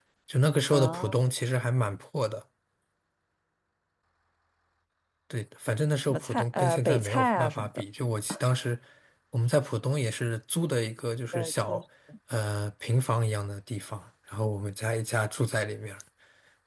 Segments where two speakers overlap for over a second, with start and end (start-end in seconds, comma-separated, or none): 6.0-7.8